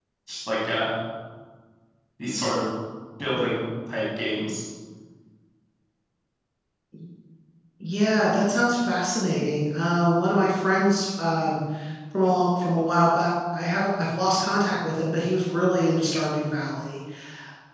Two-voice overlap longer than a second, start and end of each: none

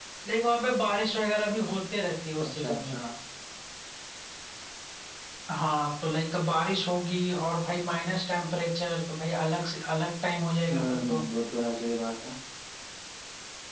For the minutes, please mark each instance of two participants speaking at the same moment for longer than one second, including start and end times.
none

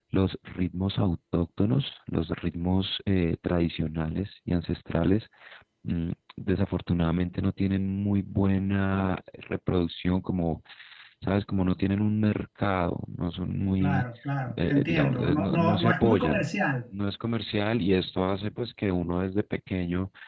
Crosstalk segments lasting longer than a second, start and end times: 14.7-16.4

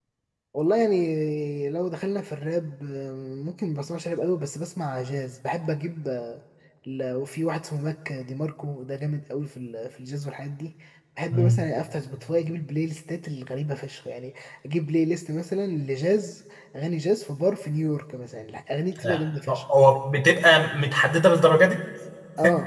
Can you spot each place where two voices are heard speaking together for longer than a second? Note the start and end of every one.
none

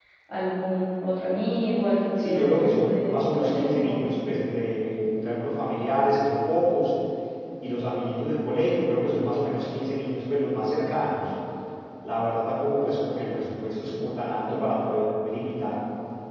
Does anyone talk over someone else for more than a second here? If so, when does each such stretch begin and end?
2.2-4.0

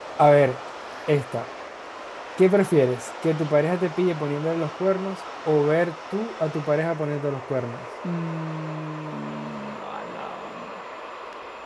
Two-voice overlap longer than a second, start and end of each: none

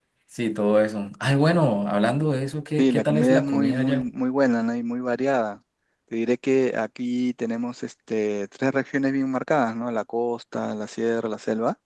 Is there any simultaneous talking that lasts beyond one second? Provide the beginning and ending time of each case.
2.8-4.1

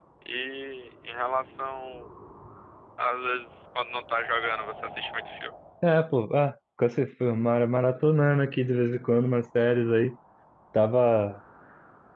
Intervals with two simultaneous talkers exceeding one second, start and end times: none

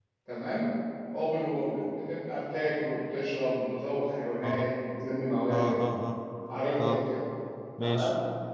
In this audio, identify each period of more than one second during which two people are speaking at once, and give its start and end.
none

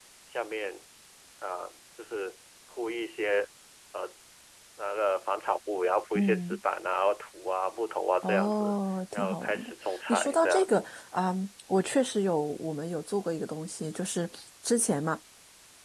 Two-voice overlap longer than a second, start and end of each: 9.1-10.8

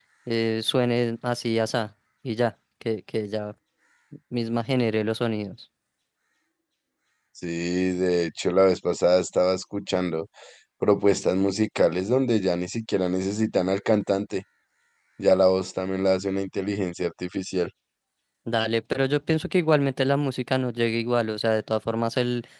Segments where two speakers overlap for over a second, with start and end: none

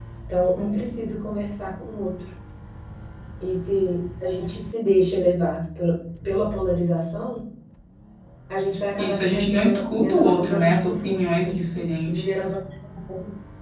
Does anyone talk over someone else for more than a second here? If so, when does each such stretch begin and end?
9.0-11.6

